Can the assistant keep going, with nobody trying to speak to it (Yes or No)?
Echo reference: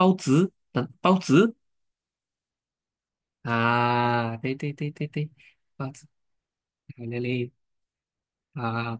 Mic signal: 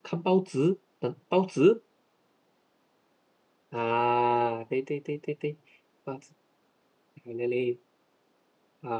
Yes